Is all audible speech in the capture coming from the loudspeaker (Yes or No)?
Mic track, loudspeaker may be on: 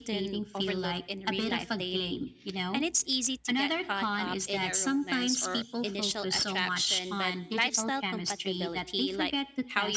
No